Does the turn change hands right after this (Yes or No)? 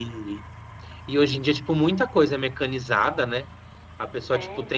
No